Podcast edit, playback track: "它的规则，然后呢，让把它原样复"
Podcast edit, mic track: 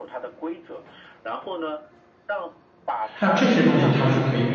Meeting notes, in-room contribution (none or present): present